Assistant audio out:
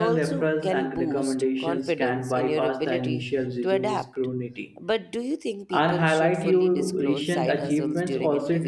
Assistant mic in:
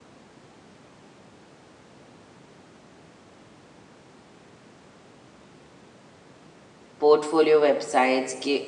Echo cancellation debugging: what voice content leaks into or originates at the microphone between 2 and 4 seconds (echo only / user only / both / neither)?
neither